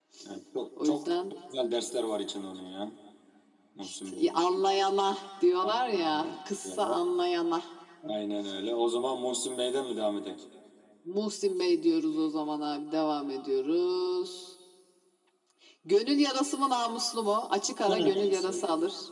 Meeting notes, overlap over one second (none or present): present